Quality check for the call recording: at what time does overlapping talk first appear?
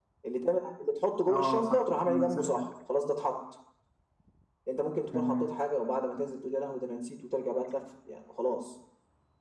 1.3 s

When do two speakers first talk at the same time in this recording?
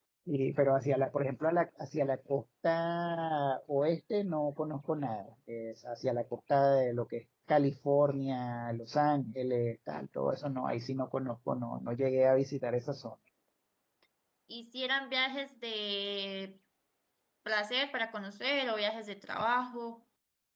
none

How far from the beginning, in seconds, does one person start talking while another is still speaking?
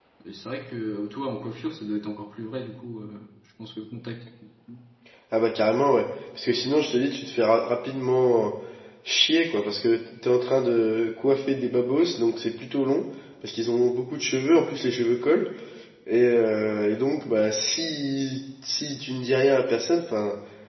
none

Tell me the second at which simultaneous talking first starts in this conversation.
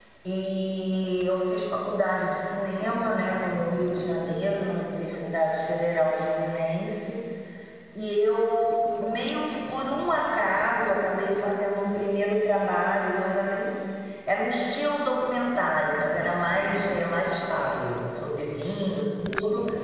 none

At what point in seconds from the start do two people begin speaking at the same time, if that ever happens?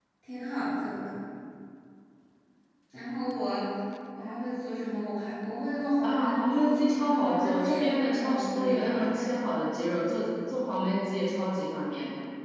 6.0 s

